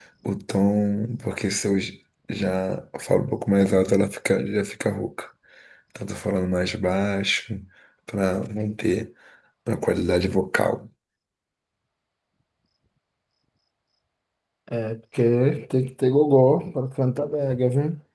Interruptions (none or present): none